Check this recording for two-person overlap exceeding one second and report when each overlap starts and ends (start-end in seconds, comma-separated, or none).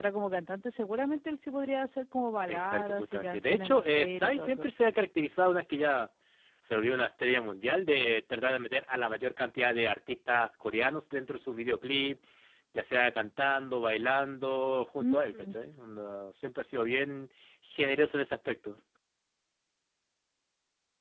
2.5-4.7